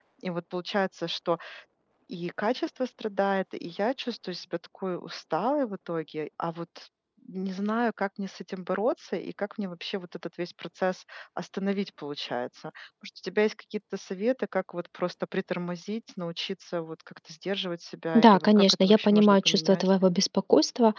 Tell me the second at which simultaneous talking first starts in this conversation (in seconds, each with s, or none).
18.1 s